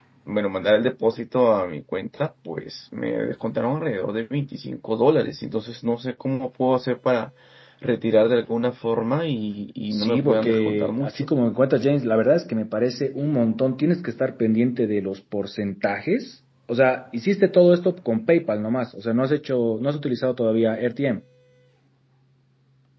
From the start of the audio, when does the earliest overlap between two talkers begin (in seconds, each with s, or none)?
9.9 s